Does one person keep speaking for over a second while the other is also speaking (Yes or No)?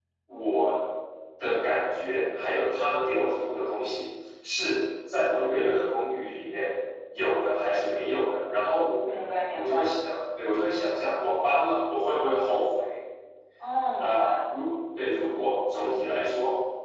No